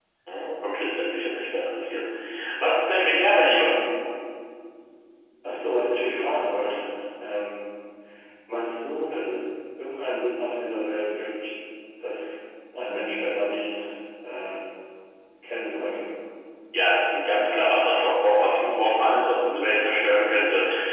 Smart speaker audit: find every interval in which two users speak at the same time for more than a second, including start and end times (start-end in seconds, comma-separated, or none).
none